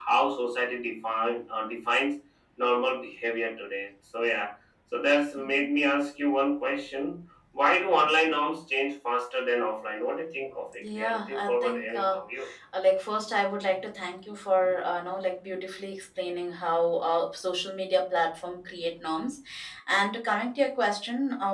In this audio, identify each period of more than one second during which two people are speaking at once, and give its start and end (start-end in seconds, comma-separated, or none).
11.0-12.2